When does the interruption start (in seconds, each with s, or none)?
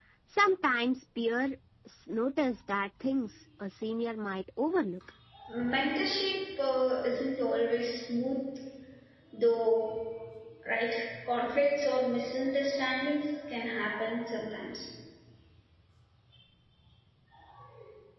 none